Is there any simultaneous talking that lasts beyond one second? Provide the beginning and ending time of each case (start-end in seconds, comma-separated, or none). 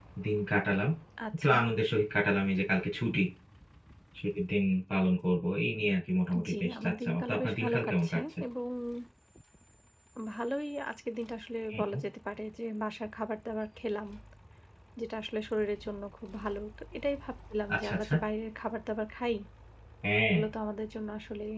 6.5-8.2